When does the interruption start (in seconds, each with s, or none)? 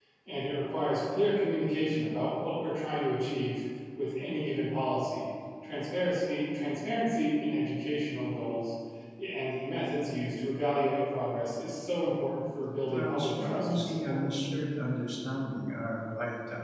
12.9 s